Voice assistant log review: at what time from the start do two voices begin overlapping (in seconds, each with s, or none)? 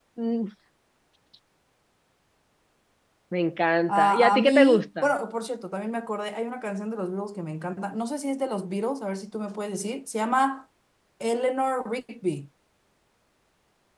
3.9 s